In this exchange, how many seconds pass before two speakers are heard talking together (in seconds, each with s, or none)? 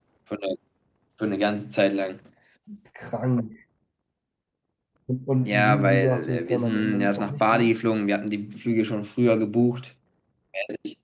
5.4 s